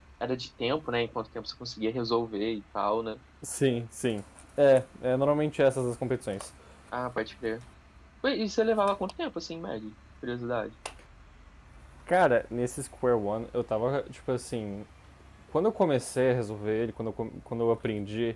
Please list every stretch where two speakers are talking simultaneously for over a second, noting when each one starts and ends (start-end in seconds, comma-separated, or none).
none